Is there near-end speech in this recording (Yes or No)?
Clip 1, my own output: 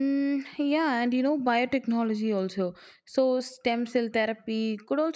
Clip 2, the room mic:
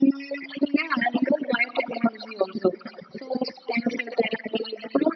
No